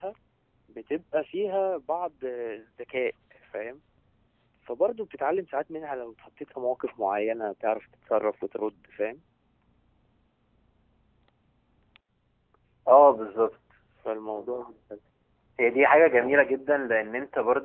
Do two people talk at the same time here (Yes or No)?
No